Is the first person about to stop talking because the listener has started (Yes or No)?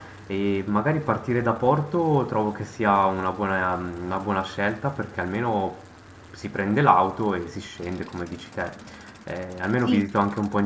No